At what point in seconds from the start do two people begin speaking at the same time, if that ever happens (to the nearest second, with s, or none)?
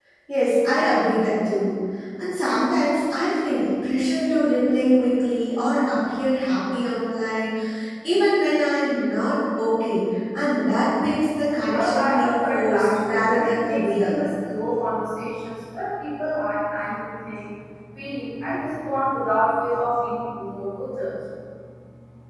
12 s